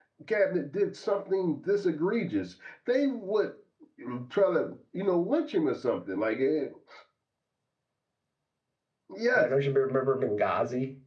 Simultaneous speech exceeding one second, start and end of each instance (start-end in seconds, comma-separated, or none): none